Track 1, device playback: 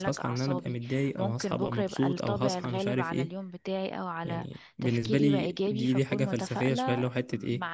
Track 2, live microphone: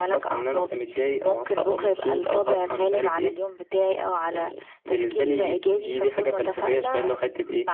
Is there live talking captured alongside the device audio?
No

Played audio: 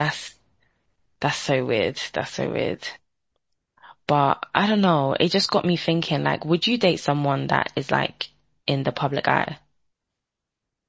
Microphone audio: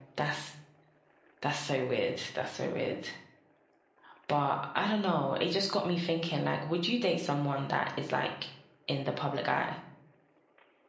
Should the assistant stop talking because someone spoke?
No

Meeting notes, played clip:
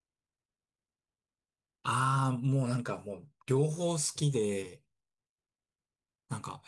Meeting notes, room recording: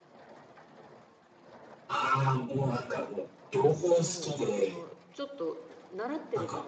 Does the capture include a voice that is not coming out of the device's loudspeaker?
Yes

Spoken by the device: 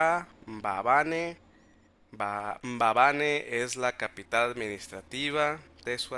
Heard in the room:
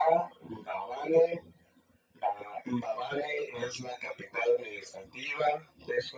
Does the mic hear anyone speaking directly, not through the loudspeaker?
No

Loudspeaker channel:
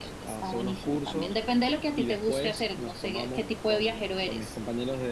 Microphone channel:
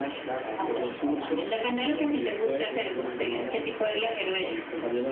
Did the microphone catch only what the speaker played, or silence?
No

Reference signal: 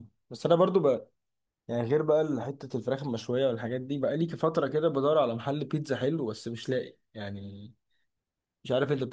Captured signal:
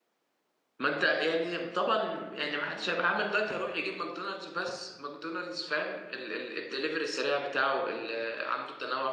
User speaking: Yes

